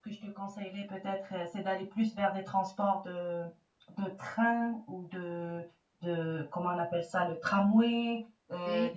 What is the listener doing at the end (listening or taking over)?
listening